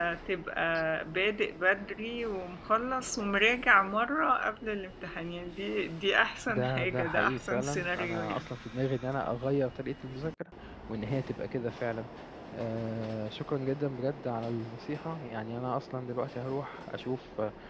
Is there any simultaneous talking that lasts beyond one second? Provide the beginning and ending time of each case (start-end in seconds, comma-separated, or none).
6.5-8.5